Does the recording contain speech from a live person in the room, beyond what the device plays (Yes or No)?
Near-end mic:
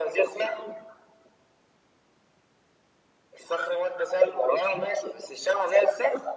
No